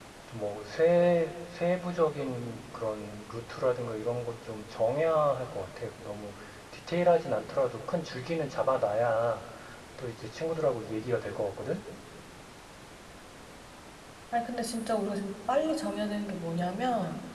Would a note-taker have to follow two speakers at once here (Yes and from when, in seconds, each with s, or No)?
No